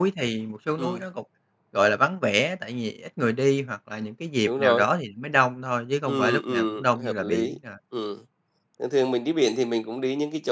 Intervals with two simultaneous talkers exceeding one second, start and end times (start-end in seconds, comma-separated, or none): 6.1-7.6